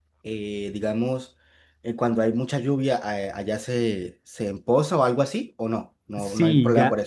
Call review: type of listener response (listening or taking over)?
taking over